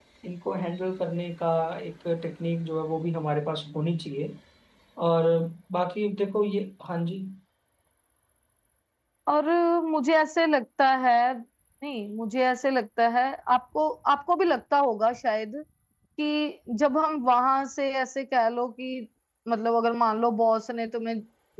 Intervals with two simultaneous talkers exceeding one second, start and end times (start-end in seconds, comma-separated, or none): none